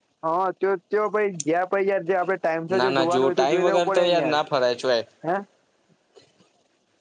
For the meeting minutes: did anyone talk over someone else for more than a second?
Yes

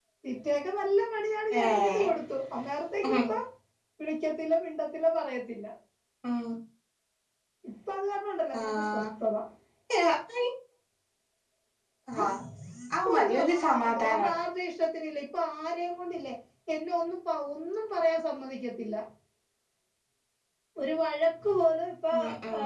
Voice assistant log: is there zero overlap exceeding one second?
No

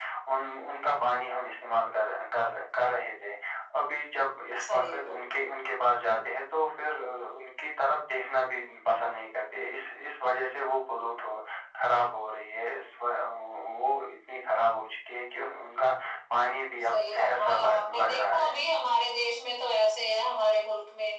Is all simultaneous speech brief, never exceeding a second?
No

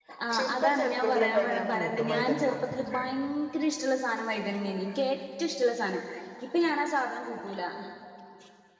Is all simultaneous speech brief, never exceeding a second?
No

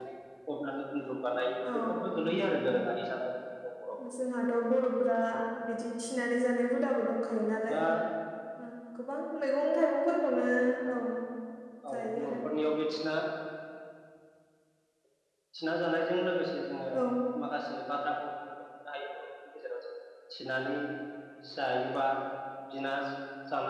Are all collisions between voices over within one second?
Yes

